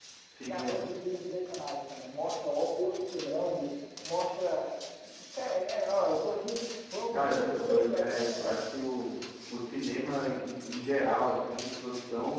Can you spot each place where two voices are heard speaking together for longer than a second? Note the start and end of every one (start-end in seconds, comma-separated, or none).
7.1-8.6